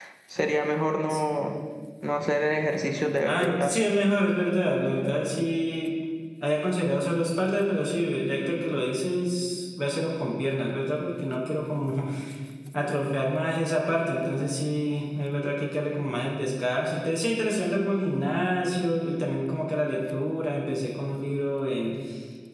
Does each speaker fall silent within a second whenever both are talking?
Yes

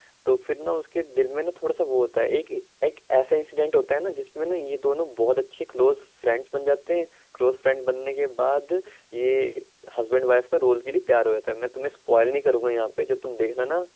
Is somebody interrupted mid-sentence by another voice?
No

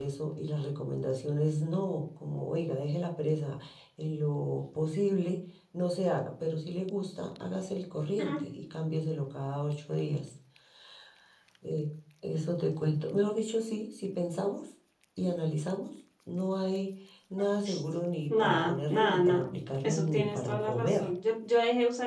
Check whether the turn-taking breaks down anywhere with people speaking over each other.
Yes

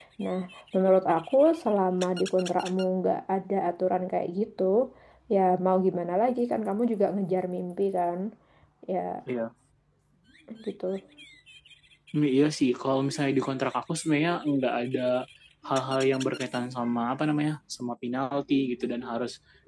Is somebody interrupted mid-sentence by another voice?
No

